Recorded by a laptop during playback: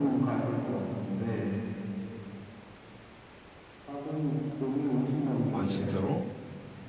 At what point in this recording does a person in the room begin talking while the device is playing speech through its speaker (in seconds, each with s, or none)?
5.5 s